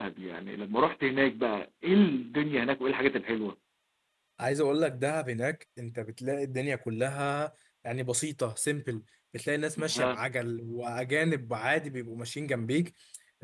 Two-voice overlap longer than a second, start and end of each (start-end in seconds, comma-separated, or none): none